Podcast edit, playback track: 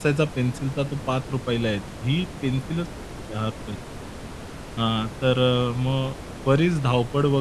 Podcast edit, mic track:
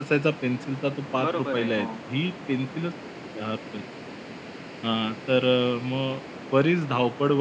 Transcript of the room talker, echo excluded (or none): बरोबर आहे. हो.